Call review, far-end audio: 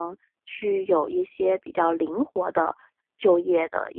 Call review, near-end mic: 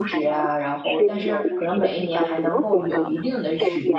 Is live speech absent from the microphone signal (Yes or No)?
No